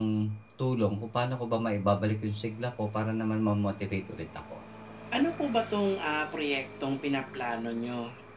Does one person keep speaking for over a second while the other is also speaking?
No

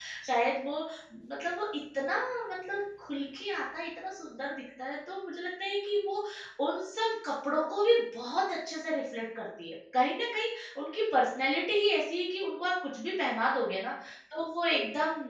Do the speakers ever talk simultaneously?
No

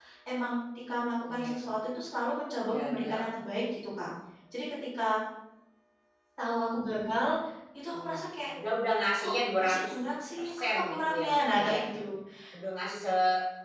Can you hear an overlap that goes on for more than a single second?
Yes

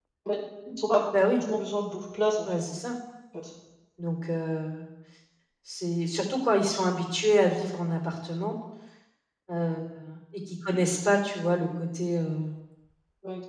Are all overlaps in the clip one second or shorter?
Yes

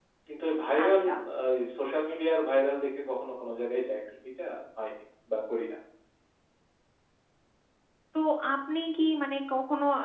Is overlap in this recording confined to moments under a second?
Yes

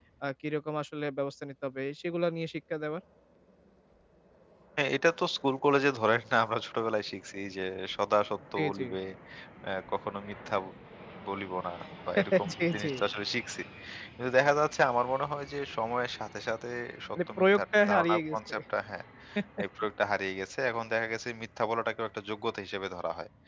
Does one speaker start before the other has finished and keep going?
Yes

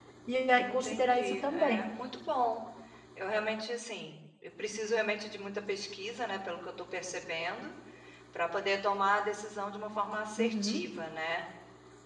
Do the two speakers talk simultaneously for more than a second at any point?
Yes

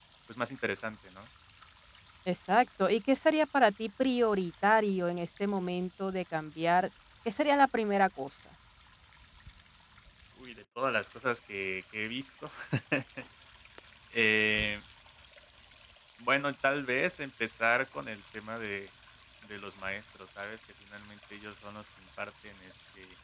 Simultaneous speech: No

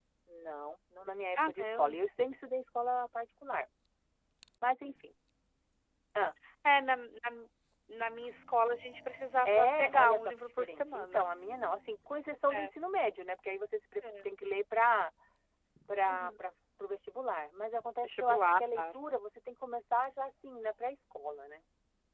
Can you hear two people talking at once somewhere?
Yes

